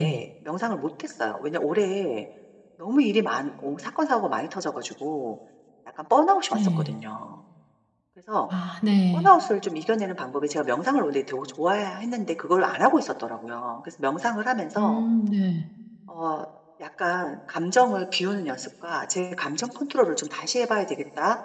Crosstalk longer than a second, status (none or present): none